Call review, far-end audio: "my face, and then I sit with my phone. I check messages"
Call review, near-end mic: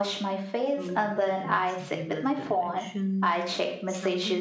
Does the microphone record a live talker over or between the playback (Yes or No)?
Yes